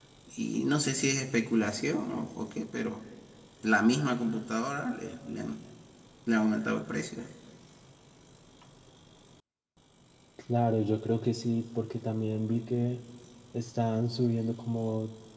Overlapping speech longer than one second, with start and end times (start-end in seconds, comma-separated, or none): none